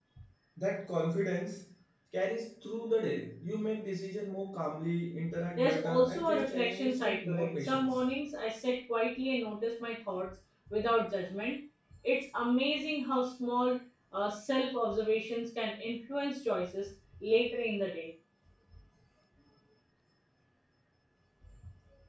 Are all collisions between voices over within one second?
No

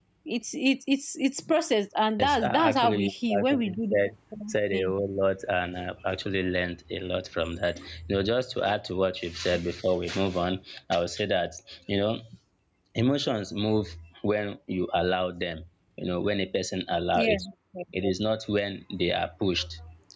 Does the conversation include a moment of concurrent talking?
Yes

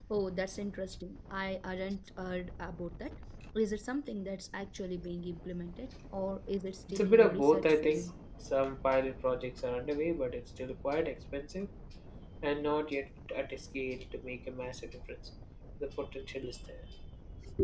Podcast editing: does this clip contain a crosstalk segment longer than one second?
Yes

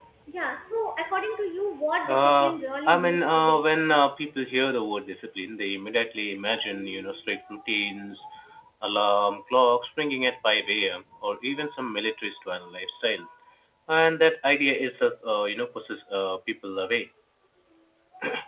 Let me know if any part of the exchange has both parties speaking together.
Yes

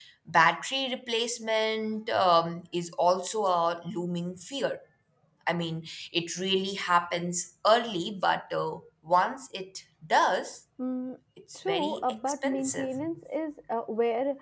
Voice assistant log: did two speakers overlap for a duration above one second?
Yes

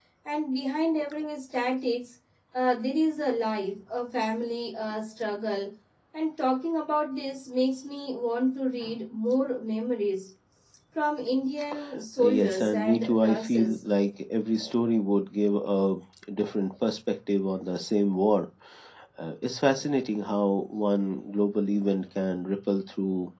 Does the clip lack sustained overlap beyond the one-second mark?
No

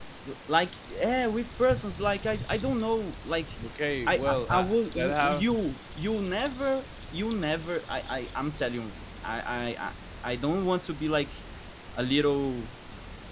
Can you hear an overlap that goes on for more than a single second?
Yes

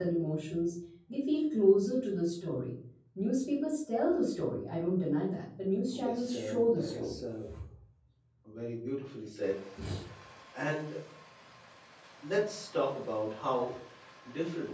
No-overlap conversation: No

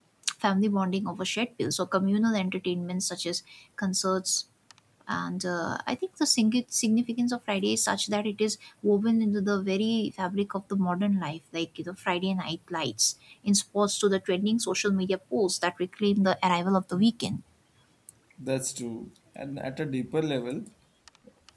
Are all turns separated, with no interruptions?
Yes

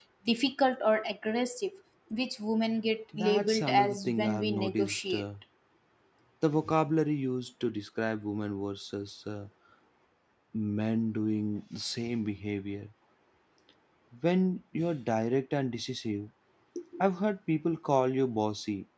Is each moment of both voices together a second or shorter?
No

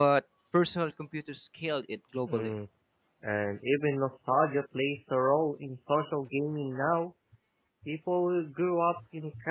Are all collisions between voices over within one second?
Yes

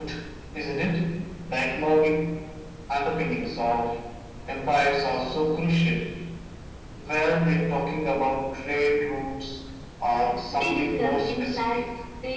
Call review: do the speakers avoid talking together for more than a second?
No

